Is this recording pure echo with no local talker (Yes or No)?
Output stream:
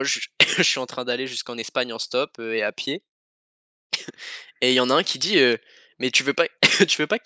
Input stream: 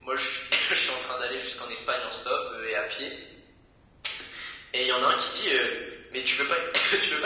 Yes